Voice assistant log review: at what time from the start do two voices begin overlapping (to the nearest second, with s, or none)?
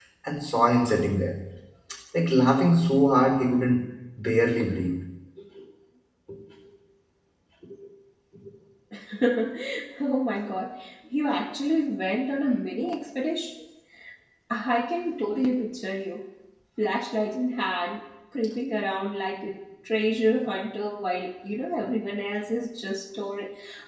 none